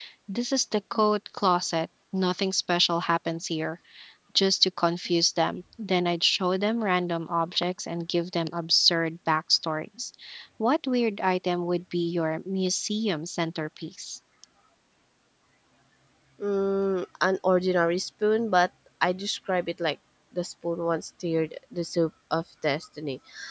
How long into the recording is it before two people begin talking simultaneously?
none

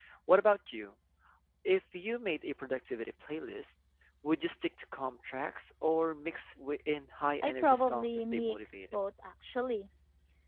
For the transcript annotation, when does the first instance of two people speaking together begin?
7 s

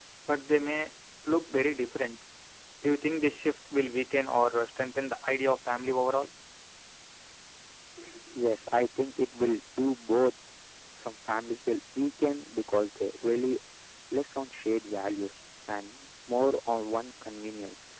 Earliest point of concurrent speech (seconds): none

